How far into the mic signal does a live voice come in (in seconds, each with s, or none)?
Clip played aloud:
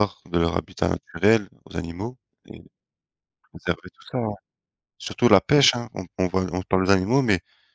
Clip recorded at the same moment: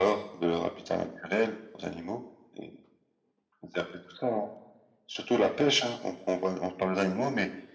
none